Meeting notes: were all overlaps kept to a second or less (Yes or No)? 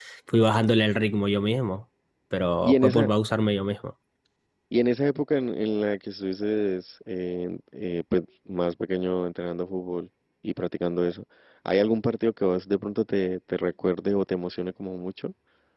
Yes